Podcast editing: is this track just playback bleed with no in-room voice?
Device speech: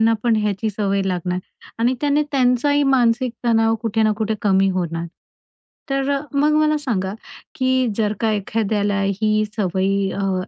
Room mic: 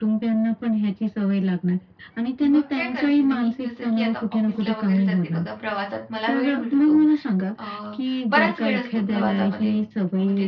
No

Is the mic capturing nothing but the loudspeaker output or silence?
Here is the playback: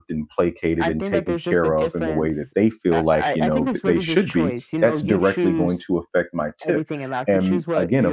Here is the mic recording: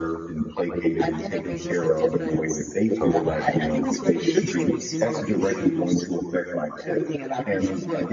No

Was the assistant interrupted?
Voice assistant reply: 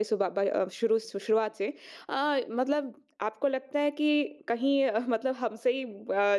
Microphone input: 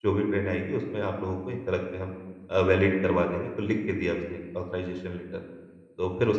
Yes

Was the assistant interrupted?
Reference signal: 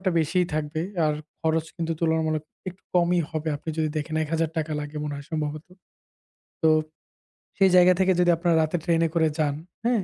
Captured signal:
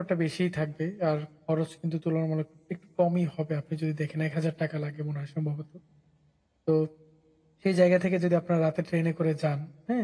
No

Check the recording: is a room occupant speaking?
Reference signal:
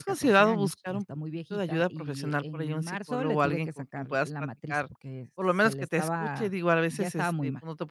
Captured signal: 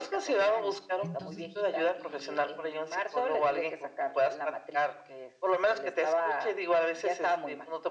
Yes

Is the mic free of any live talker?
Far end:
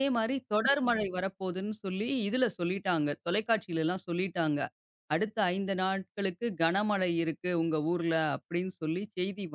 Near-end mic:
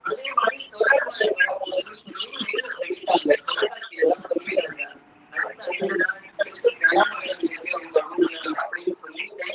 Yes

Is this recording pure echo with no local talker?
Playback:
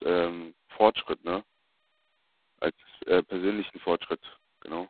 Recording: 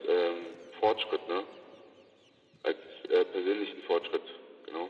Yes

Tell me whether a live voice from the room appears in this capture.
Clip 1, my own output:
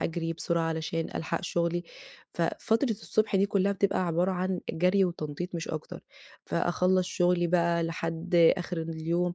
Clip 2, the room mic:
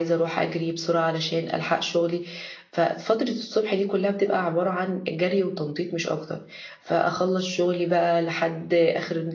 No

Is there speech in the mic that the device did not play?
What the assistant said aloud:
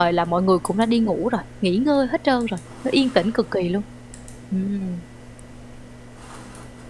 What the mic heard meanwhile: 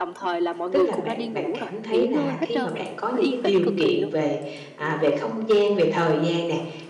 Yes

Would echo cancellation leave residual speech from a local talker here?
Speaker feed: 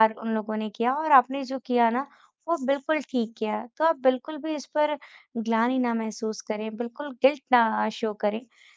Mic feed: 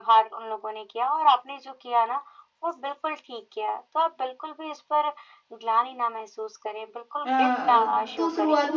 Yes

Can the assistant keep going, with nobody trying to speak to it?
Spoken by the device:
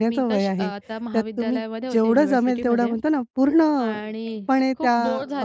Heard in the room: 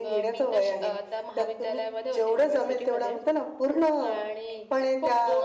Yes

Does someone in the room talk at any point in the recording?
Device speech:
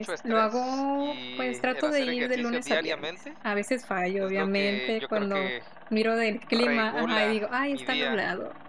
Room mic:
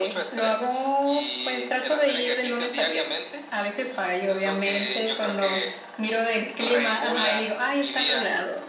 No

